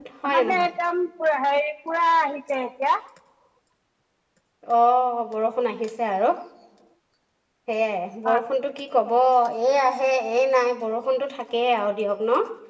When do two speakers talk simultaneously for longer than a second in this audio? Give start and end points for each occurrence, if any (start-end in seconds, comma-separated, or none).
none